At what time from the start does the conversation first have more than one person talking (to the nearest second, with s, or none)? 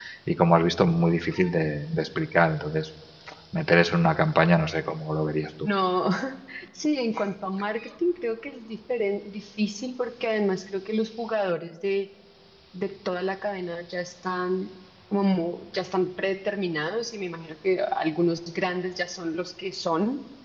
none